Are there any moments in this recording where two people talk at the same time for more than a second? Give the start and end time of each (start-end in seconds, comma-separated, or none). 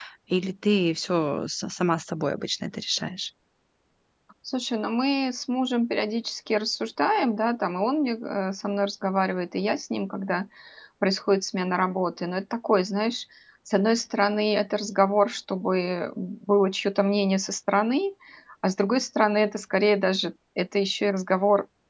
none